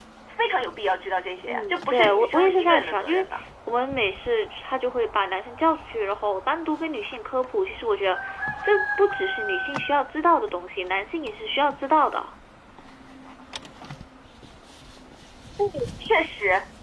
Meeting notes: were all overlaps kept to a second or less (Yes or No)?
No